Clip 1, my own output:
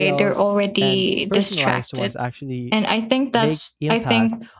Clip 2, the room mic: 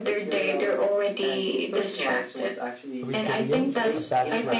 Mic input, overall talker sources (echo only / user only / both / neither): both